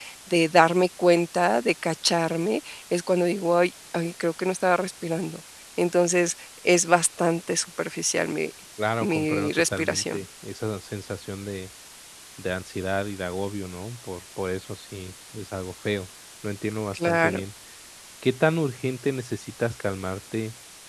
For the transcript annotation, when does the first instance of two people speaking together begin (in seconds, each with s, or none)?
9.0 s